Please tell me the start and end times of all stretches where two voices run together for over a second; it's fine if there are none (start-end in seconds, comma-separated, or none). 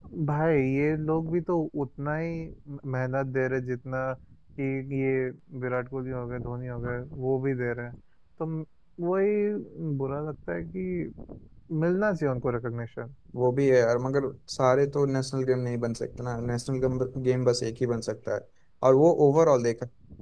none